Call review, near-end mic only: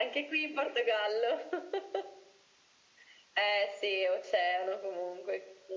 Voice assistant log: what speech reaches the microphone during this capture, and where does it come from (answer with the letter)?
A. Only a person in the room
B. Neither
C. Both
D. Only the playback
D